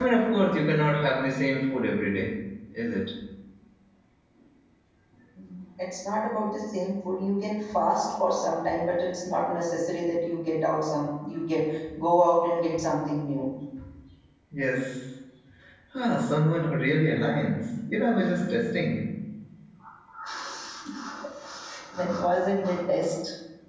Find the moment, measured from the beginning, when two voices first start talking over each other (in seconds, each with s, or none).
none